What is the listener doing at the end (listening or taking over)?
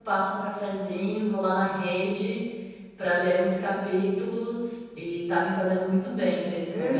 taking over